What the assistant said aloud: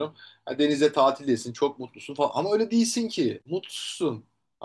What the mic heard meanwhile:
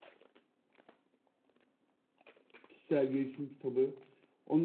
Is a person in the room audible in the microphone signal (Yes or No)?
Yes